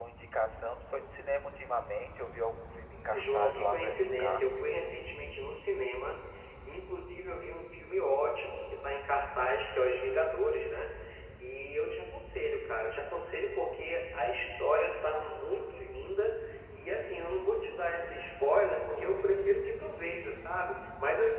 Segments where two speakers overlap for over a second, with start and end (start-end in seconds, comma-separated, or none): 2.9-4.5